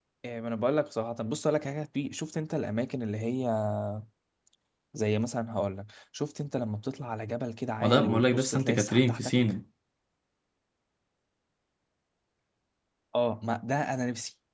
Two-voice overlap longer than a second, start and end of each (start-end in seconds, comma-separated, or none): 7.8-9.3